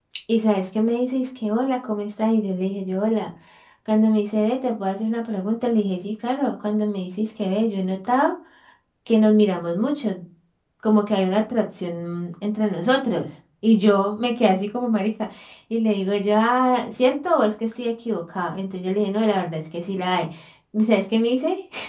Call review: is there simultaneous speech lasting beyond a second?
No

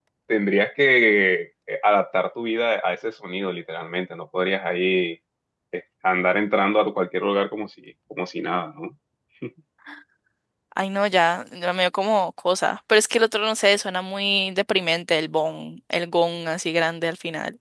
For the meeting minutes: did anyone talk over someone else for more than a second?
No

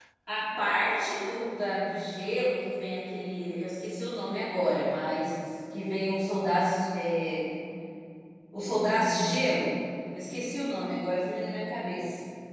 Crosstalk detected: No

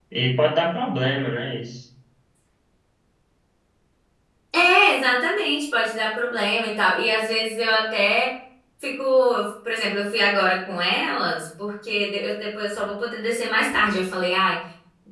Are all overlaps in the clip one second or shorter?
Yes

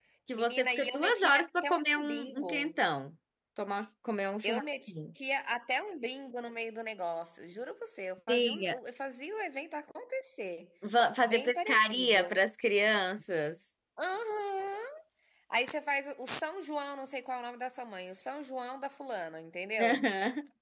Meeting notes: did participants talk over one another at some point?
Yes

